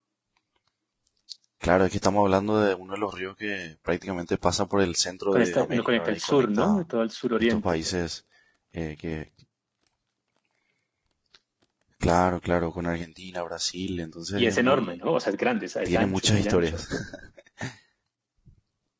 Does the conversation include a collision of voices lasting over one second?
Yes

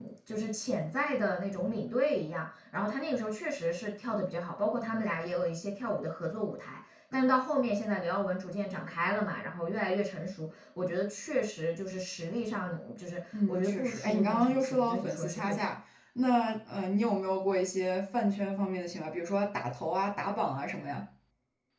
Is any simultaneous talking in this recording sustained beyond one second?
Yes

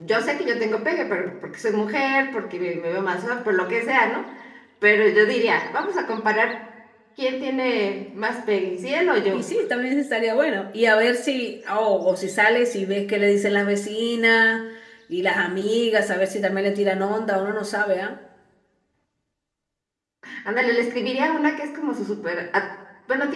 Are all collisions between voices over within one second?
Yes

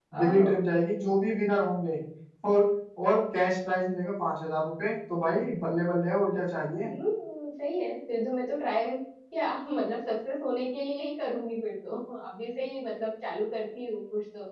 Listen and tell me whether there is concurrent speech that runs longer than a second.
No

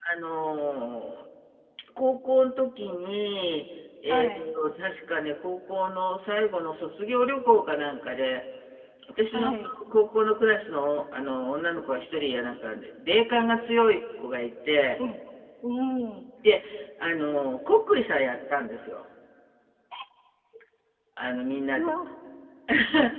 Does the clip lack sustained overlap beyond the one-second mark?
Yes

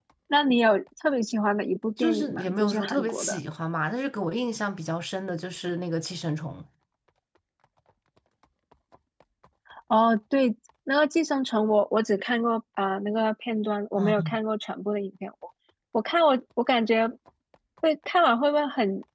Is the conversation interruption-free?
No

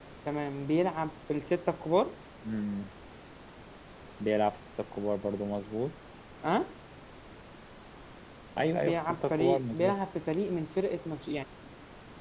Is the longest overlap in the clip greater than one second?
Yes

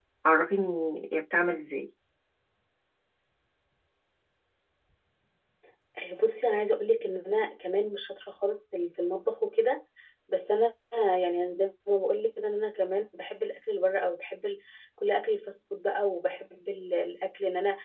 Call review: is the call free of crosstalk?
Yes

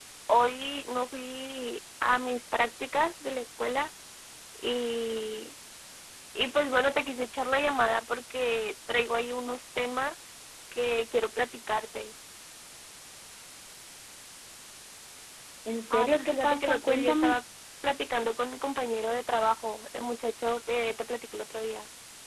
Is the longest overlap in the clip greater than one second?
Yes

